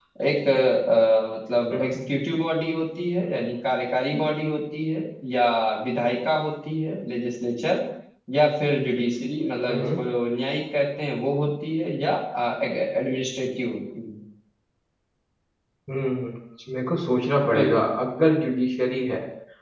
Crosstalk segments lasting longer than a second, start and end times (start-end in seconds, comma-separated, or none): none